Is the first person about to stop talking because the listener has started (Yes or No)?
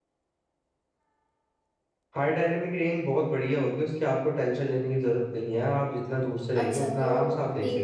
Yes